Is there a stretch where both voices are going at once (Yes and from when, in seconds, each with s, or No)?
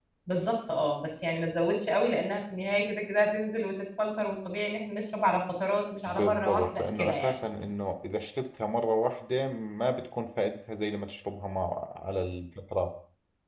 Yes, from 6.1 s